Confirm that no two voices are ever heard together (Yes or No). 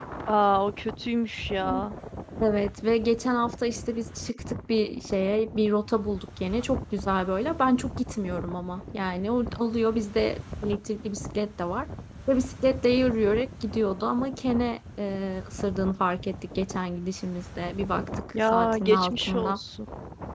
No